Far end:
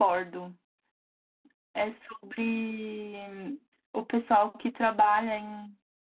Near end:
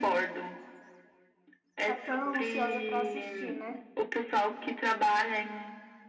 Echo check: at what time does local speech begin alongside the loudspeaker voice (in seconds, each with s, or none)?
1.8 s